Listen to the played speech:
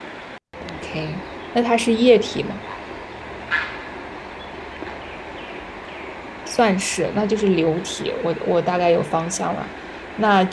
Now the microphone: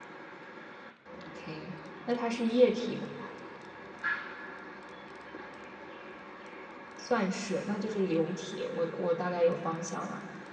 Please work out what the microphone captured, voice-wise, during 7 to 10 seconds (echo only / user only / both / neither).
echo only